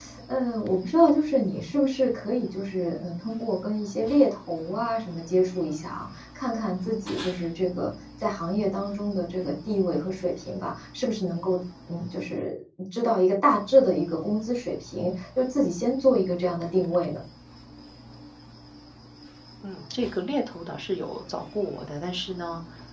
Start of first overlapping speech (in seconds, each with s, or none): none